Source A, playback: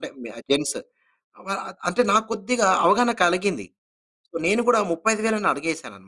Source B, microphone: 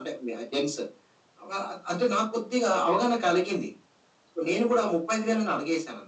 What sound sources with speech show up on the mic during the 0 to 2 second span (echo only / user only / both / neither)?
echo only